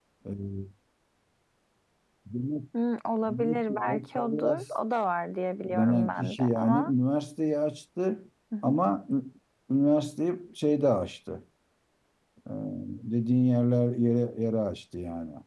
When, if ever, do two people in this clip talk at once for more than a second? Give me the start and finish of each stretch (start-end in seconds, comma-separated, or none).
3.3-4.7, 5.7-6.9